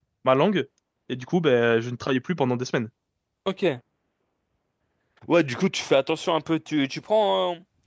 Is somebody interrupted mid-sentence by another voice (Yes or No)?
No